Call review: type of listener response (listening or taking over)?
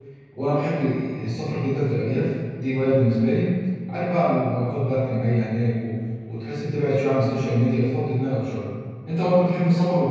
listening